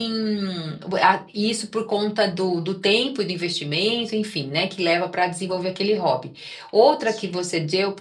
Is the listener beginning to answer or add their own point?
No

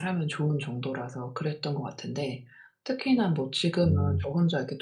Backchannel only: Yes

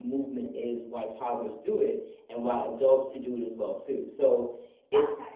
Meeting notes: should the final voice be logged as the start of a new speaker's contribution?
Yes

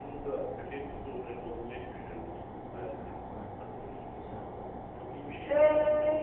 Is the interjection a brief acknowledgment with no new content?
No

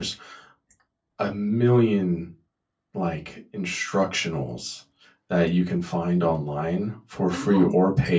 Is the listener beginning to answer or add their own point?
No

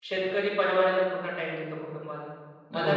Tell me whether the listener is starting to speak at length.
No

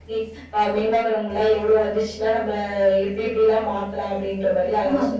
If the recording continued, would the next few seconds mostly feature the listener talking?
Yes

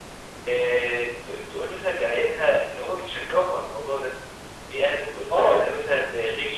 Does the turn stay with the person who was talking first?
Yes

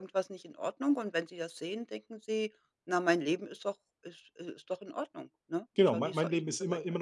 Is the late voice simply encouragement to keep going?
No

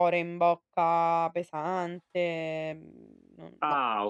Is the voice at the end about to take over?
Yes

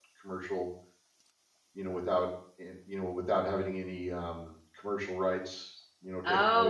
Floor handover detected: Yes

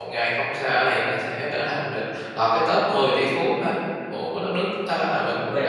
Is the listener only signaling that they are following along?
No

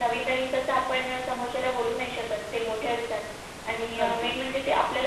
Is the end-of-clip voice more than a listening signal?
No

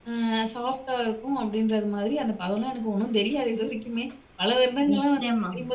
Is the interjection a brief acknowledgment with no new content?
Yes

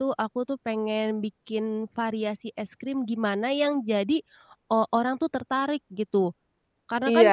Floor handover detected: Yes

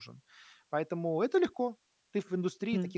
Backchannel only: No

